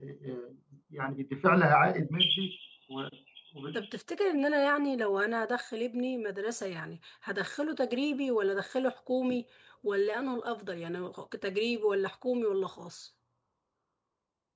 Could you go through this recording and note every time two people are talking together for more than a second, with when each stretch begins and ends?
none

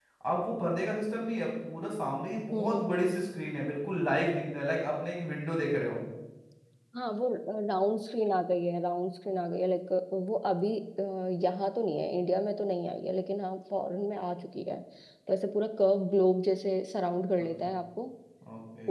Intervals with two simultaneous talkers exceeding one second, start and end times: none

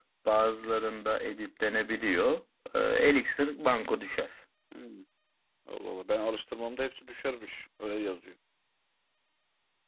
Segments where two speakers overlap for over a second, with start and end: none

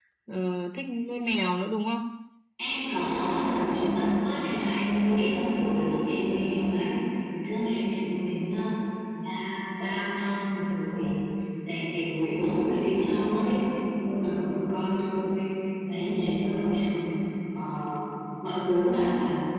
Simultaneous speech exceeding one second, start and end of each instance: none

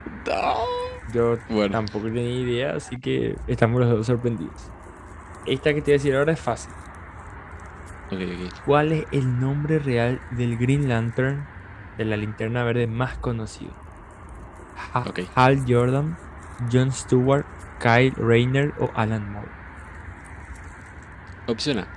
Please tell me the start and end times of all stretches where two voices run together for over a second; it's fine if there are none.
none

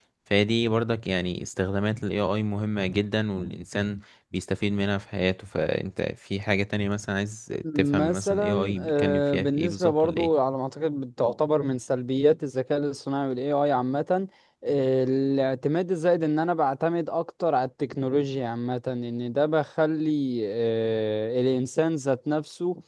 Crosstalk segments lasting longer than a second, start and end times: 7.8-10.3

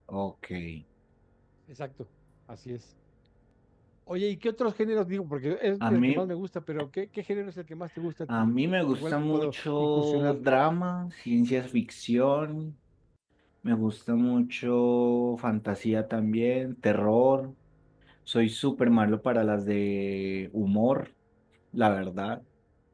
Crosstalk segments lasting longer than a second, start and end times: 8.9-10.4

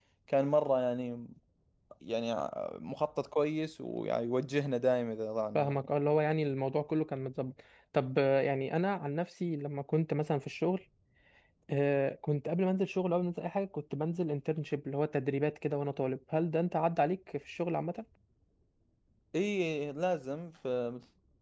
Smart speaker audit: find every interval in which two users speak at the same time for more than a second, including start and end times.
none

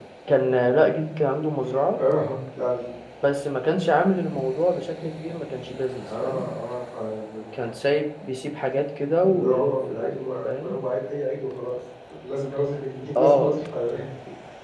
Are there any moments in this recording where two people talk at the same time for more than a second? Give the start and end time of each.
9.2-10.8

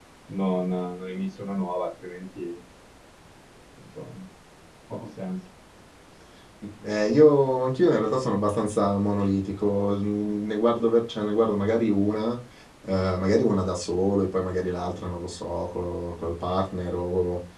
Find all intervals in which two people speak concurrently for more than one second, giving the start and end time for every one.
none

